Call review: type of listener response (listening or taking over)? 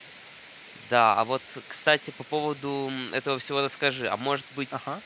listening